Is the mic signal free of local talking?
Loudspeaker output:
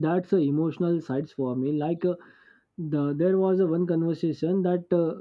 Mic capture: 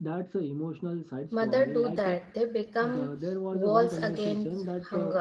No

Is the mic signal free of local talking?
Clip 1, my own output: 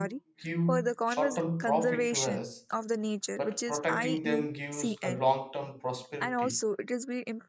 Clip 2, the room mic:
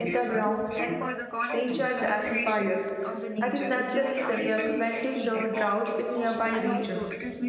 No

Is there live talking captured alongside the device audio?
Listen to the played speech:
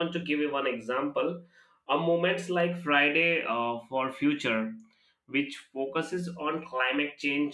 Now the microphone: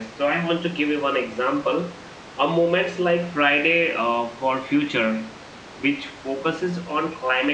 No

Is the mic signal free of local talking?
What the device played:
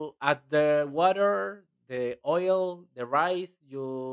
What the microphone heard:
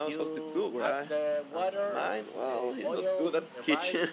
No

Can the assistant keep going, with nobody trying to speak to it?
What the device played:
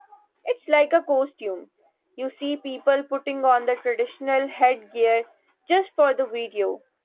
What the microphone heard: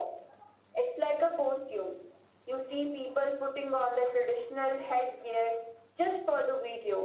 Yes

